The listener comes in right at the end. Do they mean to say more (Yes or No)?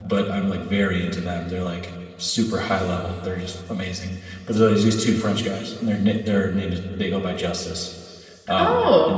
No